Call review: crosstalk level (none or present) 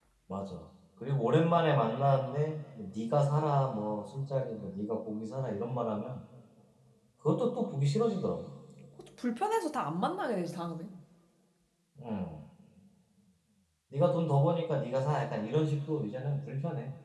none